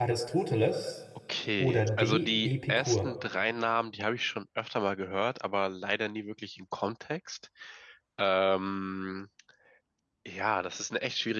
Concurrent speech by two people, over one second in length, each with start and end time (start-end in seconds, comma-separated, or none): 1.6-3.1